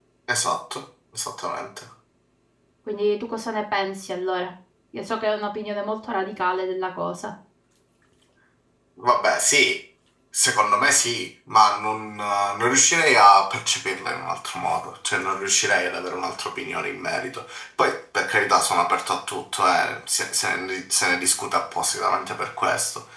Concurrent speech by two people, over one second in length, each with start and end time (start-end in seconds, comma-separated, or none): none